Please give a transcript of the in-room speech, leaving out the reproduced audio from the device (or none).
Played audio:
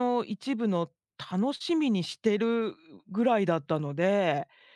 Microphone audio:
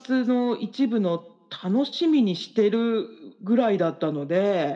none